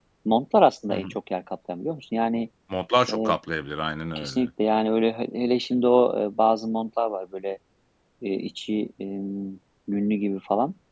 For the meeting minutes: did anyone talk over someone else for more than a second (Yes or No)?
No